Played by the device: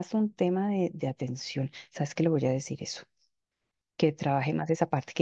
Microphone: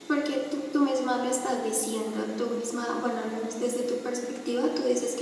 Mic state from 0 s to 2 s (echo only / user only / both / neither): user only